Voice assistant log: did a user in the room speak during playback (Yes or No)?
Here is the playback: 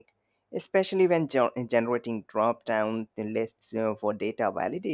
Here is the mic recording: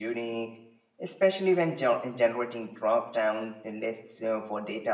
No